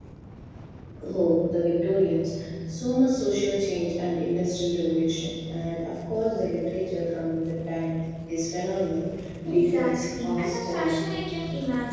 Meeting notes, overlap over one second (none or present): present